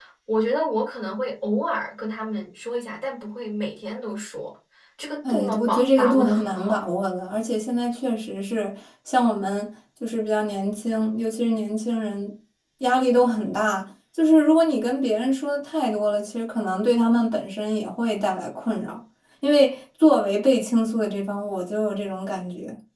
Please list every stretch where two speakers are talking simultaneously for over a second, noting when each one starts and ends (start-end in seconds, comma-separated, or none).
5.3-6.8